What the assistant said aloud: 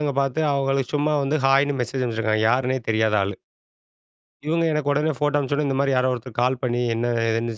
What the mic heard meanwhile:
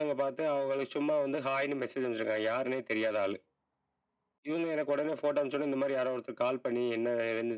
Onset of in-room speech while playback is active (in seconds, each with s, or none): none